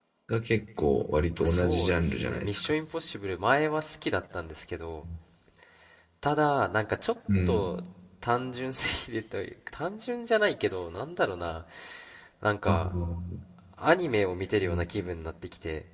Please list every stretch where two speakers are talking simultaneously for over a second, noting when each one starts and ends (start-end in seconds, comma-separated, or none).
1.4-2.7